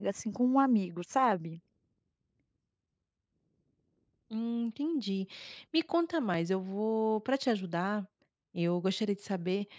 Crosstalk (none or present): none